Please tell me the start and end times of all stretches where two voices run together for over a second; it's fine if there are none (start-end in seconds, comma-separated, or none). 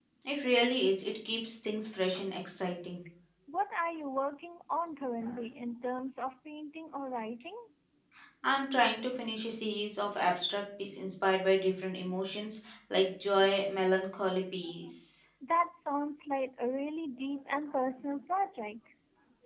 none